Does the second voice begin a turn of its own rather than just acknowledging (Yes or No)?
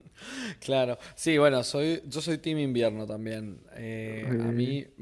No